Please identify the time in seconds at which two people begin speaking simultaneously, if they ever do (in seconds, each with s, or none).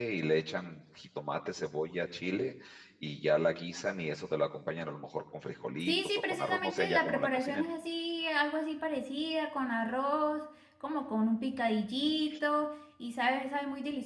5.8 s